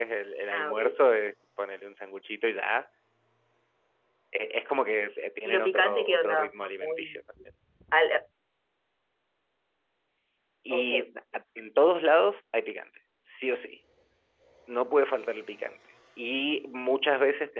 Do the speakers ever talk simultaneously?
Yes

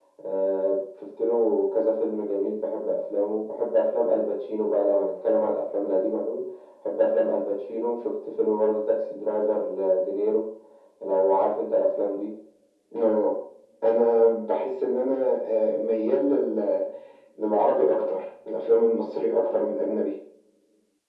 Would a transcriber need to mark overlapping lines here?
No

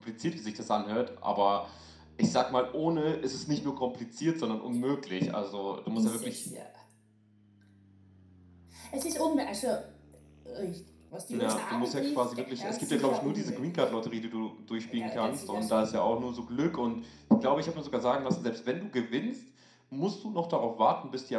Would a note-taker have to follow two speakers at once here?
Yes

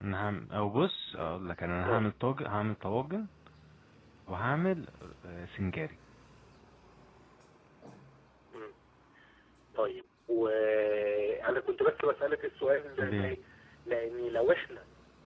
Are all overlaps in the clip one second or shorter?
Yes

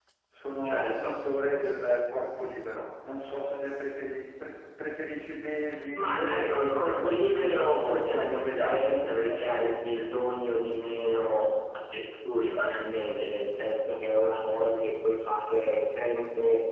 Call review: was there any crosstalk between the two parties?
Yes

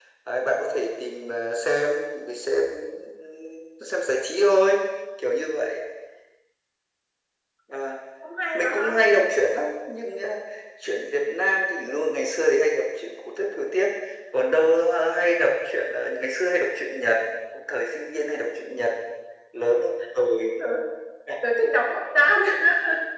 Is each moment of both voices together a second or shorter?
Yes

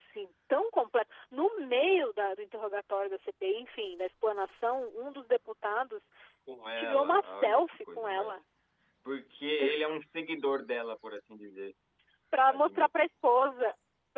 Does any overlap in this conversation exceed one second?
Yes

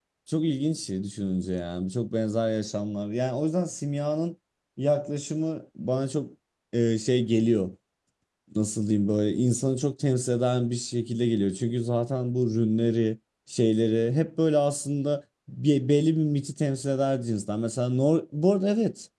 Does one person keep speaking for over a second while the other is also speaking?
No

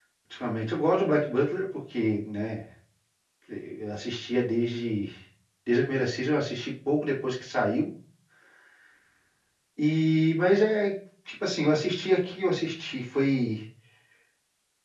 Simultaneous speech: No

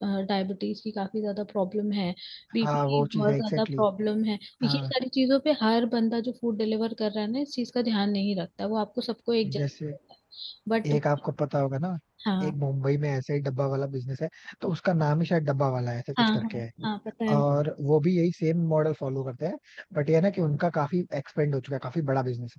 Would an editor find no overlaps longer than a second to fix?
No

